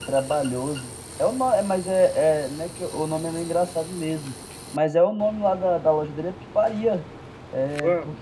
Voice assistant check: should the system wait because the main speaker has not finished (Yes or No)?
Yes